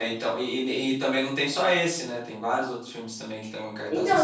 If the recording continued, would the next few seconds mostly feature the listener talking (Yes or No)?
Yes